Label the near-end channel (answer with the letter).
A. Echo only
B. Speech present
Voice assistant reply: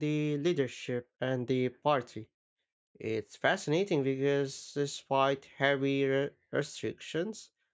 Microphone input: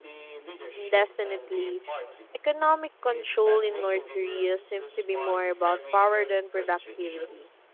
B